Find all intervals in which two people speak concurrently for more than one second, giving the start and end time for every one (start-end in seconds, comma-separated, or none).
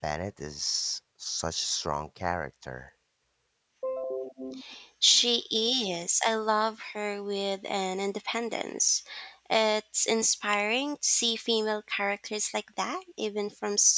none